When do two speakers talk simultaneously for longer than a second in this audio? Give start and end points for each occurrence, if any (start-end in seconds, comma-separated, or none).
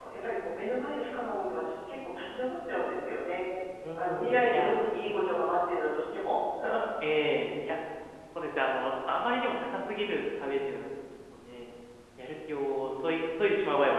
4.0-5.4